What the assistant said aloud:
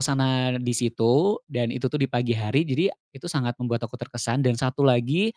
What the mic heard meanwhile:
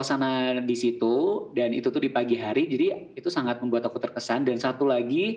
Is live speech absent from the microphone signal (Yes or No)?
Yes